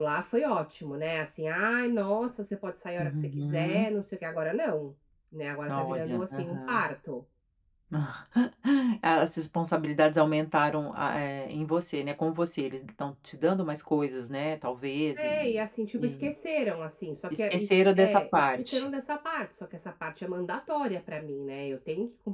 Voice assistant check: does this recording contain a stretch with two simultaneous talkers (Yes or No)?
Yes